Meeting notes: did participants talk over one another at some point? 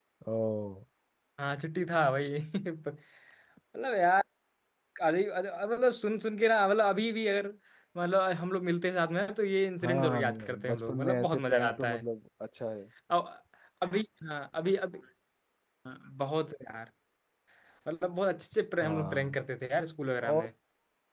Yes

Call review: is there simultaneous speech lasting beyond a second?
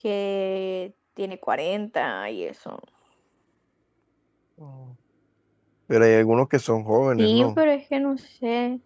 No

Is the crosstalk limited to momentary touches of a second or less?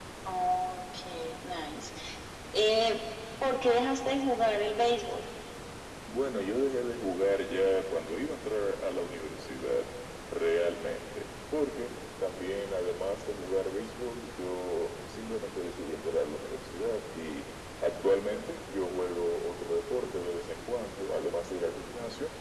Yes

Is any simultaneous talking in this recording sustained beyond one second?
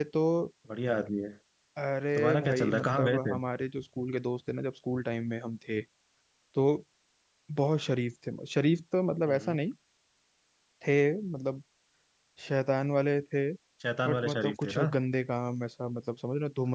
Yes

